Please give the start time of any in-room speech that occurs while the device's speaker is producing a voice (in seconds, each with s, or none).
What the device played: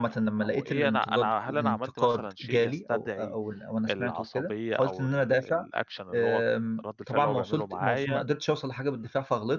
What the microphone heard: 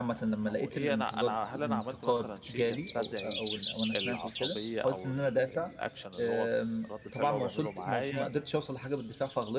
none